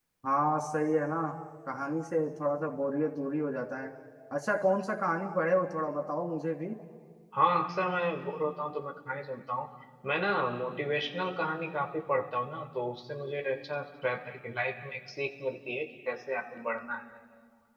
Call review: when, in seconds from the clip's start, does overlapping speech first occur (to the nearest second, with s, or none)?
none